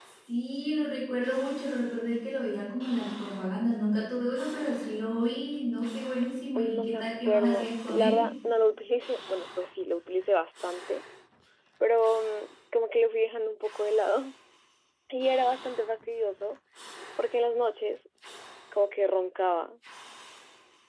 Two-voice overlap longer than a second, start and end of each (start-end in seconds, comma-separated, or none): 6.5-8.2